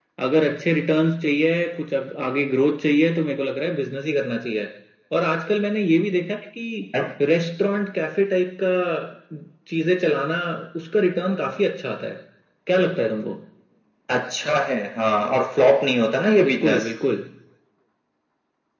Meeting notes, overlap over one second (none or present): none